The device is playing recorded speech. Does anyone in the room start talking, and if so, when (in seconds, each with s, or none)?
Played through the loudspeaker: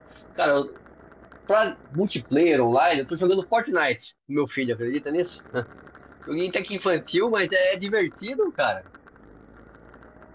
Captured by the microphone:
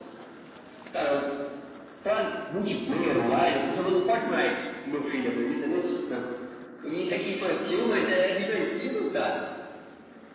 none